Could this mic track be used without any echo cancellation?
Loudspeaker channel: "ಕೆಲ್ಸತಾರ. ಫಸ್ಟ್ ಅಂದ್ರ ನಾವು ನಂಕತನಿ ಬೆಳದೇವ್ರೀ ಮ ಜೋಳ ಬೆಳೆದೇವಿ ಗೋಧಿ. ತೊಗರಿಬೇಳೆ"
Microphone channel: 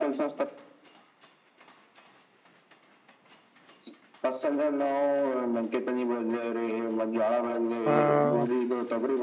No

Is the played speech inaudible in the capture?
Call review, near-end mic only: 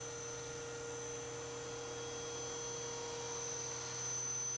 Yes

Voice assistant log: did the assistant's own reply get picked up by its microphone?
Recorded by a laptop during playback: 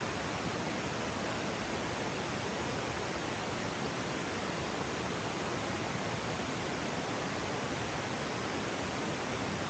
No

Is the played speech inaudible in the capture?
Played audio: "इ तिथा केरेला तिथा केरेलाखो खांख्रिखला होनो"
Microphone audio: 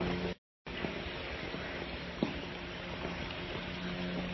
Yes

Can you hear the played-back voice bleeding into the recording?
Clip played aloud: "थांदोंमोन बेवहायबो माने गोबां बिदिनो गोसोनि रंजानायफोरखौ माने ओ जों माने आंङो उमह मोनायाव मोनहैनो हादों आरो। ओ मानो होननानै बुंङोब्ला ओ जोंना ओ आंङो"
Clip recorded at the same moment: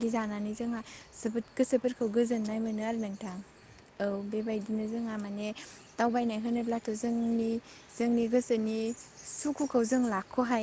No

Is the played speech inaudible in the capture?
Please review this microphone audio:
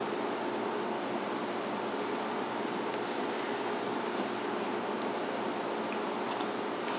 Yes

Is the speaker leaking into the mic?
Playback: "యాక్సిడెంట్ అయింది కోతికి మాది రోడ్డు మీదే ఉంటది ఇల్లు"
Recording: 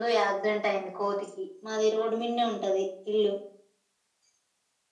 Yes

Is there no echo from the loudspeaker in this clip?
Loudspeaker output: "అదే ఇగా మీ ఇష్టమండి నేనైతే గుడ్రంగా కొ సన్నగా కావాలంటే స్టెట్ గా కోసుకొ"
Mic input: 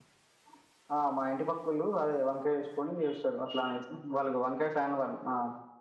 Yes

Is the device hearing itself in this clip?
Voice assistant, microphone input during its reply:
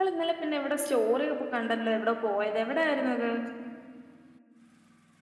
No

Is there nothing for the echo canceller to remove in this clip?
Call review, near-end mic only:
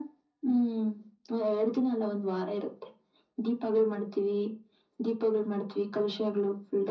No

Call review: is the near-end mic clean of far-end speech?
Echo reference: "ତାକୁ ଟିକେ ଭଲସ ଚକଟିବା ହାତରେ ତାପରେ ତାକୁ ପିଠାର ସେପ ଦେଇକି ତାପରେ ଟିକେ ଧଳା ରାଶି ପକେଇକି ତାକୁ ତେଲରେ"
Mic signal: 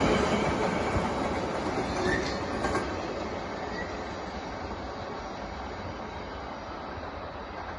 Yes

